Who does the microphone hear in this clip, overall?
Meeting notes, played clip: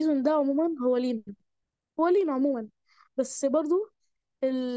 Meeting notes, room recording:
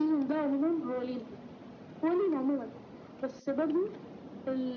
echo only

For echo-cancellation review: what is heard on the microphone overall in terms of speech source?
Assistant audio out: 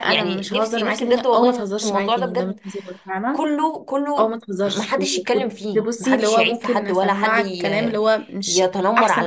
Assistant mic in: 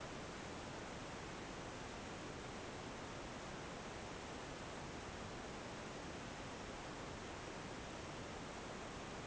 neither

